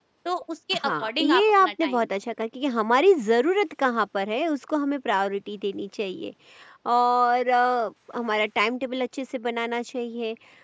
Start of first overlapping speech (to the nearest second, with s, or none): 1 s